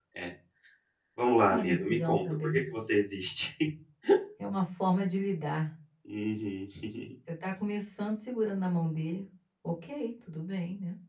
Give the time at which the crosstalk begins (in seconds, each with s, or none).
1.4 s